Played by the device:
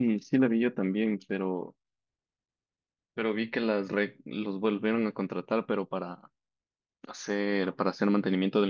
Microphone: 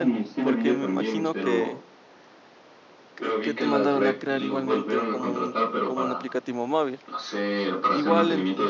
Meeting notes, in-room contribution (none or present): present